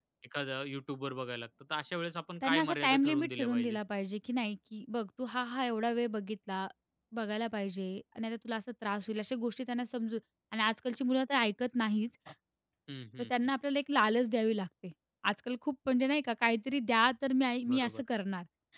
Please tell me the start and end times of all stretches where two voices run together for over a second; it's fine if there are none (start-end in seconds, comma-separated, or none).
2.4-3.8